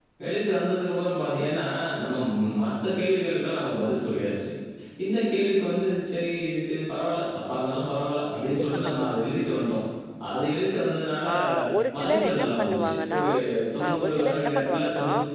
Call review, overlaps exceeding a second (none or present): present